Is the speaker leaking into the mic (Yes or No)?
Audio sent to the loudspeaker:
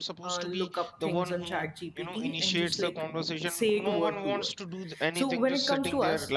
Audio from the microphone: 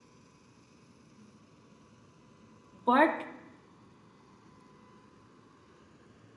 No